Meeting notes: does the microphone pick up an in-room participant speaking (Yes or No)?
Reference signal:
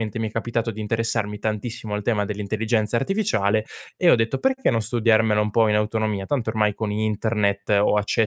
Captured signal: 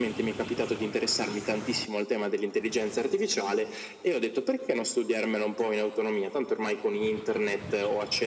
No